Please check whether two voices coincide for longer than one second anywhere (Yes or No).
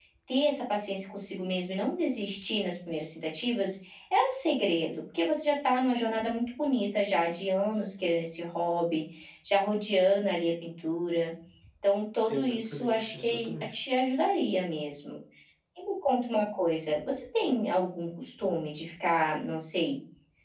Yes